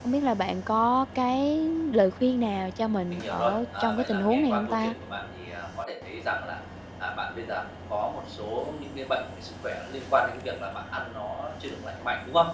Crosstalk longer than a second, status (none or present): present